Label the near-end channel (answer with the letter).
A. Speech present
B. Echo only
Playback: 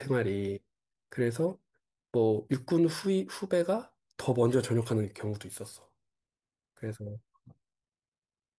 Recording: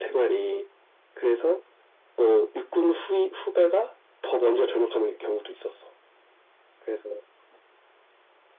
B